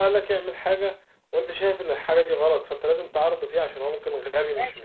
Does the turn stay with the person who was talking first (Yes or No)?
No